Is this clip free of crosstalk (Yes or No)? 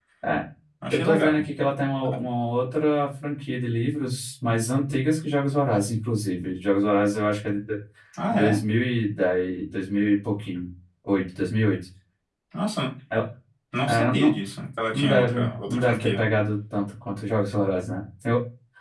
No